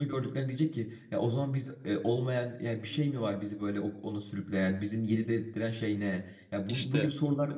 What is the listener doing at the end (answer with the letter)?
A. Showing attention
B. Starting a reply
A